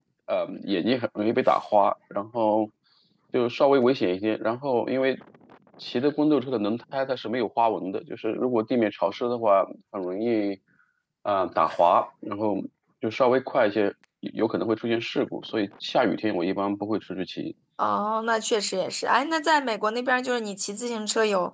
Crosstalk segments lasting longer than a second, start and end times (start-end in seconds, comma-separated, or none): none